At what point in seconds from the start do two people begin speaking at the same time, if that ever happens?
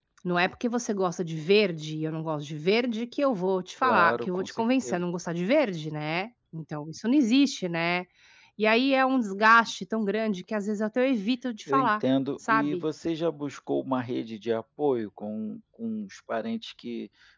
3.8 s

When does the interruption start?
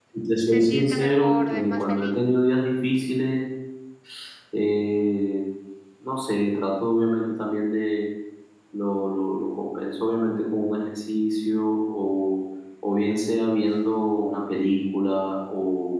0.5 s

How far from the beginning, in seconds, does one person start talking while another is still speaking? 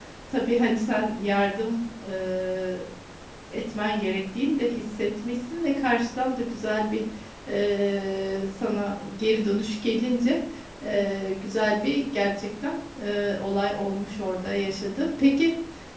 none

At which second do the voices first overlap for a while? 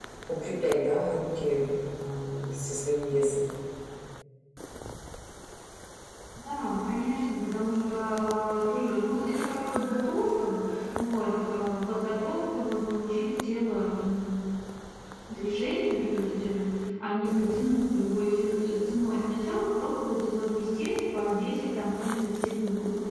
none

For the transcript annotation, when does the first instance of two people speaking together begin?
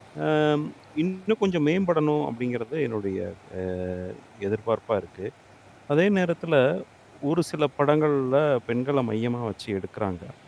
none

